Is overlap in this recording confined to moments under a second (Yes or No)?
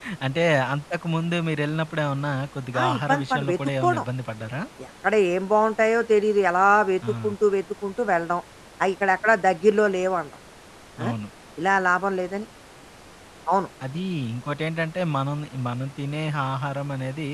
No